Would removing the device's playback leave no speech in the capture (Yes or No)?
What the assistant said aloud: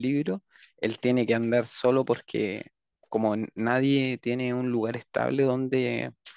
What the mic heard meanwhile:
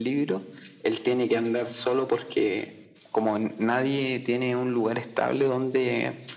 Yes